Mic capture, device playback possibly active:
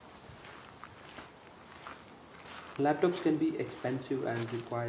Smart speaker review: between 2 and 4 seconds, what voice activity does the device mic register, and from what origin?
user only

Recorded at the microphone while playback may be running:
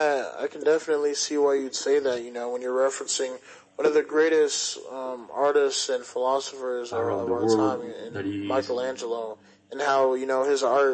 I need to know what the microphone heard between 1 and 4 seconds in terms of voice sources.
echo only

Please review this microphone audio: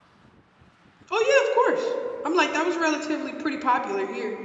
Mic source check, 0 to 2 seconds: user only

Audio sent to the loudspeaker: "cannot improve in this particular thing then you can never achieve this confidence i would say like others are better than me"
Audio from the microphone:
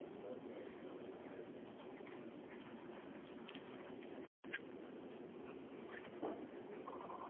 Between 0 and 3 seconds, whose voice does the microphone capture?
neither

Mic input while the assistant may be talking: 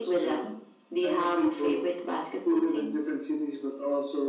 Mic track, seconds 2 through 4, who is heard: echo only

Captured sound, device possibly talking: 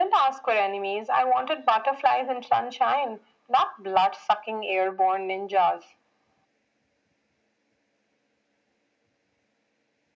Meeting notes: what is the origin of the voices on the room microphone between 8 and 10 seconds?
neither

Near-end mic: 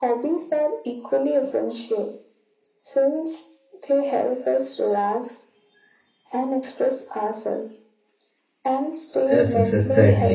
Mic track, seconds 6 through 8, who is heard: echo only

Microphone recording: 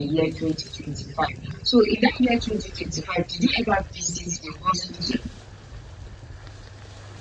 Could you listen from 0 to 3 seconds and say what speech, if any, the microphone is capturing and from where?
echo only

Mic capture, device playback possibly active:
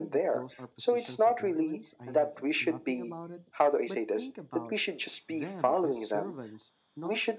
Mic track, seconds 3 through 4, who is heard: both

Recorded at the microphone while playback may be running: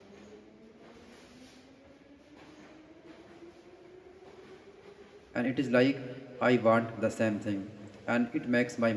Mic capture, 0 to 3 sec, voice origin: neither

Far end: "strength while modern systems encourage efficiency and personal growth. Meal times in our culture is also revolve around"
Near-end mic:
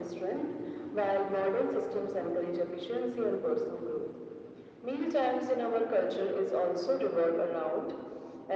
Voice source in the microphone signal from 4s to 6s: echo only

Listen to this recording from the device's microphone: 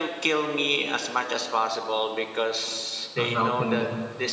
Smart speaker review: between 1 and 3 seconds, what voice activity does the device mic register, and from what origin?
echo only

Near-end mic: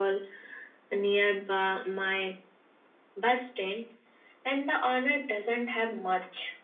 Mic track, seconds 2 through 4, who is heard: echo only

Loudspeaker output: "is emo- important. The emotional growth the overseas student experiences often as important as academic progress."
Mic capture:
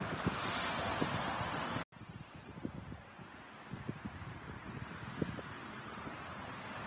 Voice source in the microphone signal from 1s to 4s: neither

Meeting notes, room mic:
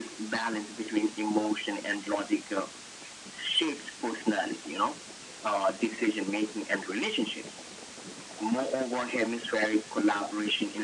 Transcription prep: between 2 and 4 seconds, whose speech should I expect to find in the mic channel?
echo only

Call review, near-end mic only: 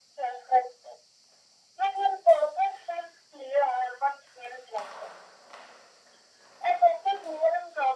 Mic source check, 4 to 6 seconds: echo only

